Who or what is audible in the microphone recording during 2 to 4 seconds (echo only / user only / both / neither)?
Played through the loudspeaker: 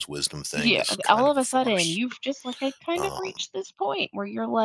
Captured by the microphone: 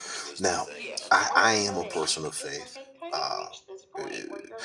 both